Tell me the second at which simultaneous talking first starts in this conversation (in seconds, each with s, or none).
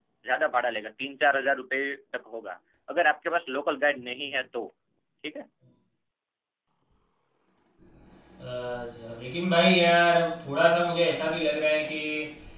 none